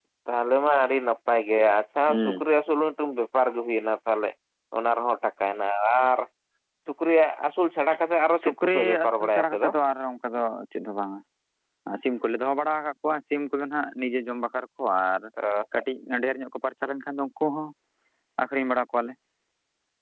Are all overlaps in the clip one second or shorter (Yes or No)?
No